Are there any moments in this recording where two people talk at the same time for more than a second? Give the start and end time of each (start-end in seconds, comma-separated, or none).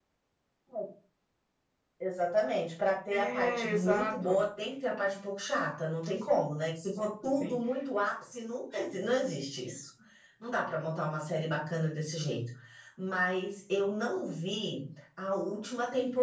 3.1-4.4